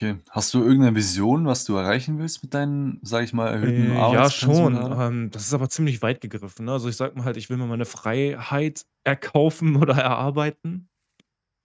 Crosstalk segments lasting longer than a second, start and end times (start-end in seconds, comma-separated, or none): 3.6-5.0